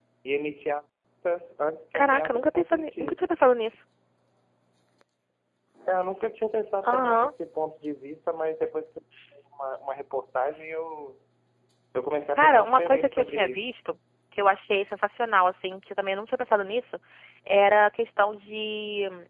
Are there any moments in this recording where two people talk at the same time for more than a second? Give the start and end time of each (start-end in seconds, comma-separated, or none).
1.9-3.2, 12.4-13.6